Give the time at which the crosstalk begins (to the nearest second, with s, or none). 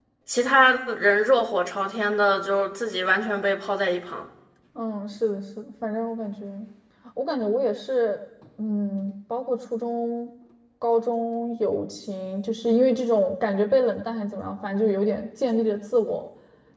none